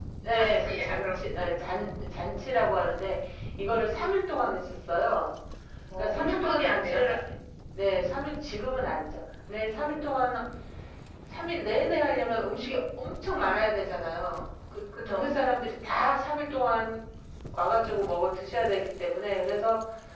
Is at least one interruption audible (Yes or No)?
Yes